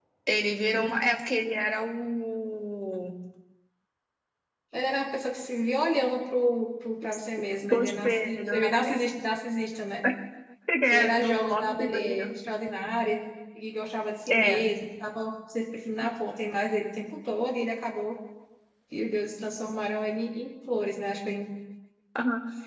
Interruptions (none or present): present